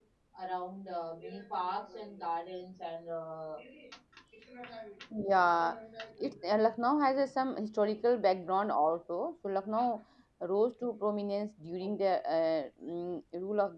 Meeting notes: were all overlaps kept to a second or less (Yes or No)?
Yes